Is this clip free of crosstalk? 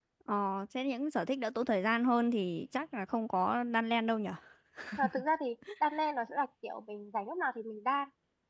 Yes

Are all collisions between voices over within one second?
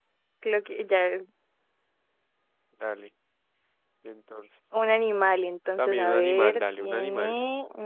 No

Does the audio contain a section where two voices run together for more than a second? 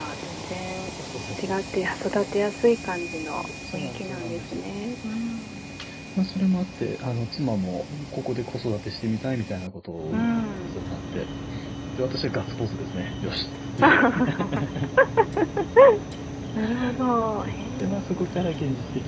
Yes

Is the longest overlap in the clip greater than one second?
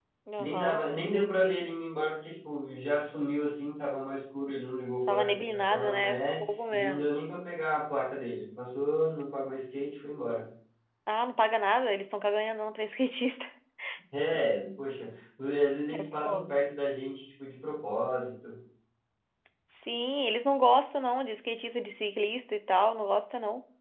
Yes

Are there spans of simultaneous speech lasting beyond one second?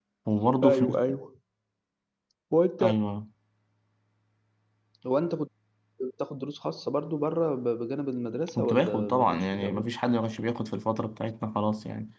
Yes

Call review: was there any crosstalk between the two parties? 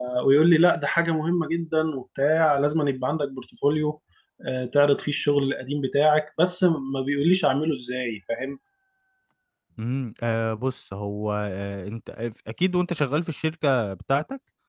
No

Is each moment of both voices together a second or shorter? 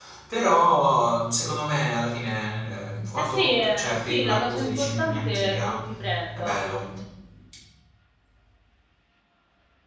No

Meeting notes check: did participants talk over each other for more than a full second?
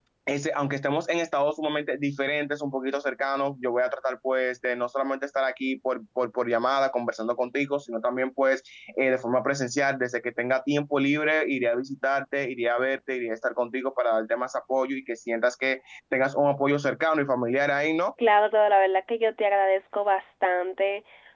No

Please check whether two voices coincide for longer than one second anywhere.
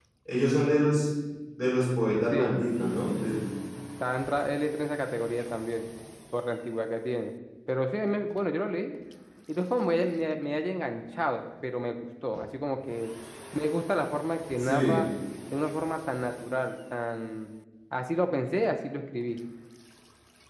No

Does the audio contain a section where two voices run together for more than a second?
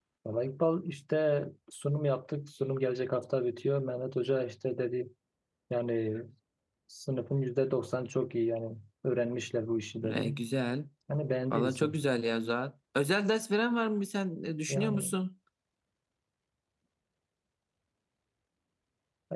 No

